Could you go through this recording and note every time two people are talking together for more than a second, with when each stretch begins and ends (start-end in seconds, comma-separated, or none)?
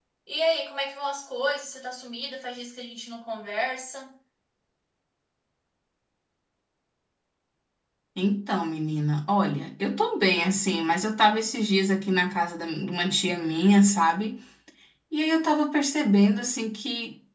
none